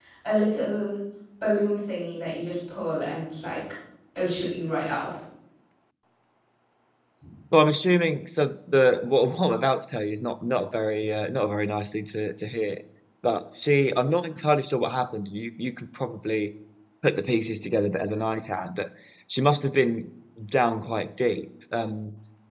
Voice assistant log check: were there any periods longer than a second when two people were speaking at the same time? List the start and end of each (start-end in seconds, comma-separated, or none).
none